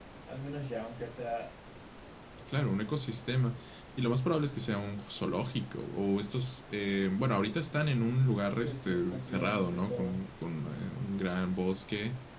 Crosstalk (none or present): present